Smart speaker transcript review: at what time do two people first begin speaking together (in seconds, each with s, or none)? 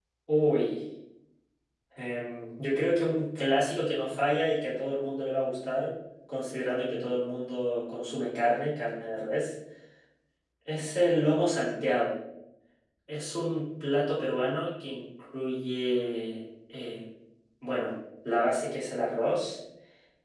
none